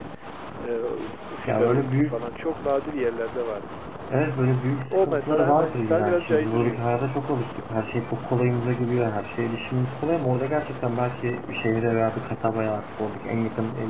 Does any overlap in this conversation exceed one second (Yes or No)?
Yes